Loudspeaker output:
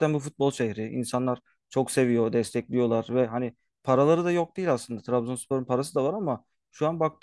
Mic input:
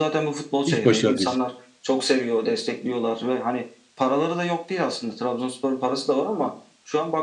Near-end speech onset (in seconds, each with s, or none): 0.7 s